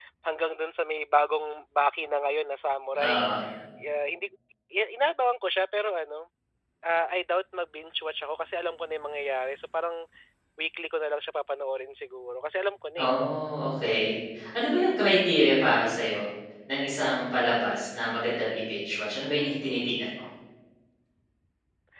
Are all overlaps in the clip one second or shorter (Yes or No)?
Yes